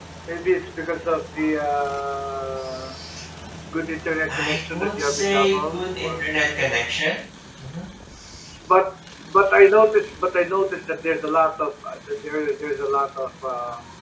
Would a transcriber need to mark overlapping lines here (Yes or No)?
Yes